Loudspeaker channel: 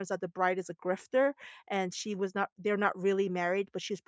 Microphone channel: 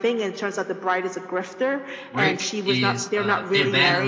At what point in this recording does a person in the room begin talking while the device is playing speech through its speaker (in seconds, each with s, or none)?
2.1 s